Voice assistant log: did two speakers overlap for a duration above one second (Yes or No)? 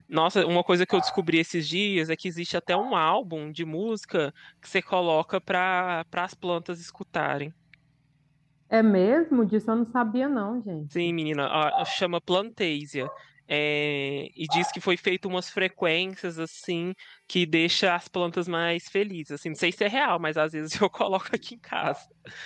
No